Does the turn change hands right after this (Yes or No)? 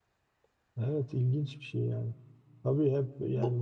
No